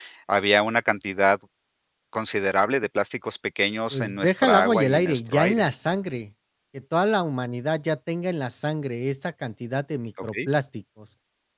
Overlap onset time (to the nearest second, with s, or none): 4 s